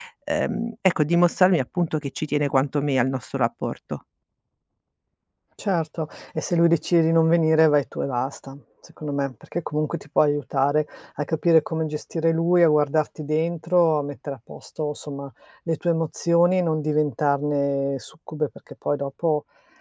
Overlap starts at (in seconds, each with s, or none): none